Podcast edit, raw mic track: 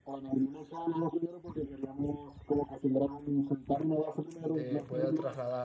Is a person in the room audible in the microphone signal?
Yes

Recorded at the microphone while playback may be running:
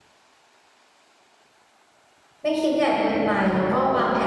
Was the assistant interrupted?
Yes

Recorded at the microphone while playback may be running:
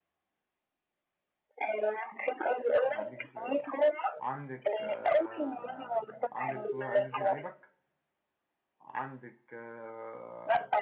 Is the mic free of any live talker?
No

